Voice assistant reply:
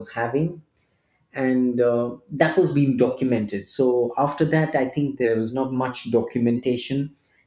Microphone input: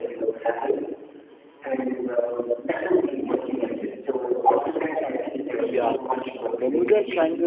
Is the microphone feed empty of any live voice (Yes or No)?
No